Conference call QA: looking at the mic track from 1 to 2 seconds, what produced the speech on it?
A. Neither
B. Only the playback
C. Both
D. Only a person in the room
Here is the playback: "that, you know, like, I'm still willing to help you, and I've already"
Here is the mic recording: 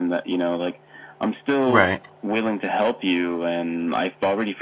C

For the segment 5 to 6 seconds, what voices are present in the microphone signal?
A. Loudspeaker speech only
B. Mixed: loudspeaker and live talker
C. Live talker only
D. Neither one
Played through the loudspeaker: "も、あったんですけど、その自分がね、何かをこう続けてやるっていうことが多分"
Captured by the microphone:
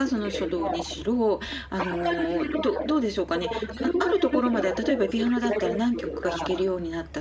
B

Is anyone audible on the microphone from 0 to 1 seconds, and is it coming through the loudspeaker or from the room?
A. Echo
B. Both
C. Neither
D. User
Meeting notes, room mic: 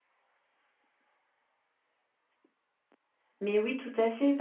C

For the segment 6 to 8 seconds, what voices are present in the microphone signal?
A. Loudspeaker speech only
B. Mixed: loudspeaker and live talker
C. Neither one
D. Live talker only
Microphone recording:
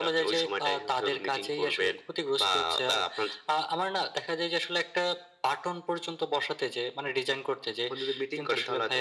A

